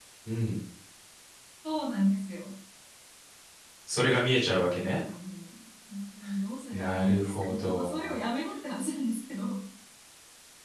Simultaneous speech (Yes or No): Yes